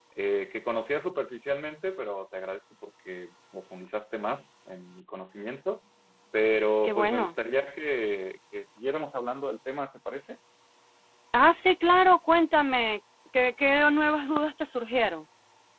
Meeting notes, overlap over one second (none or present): none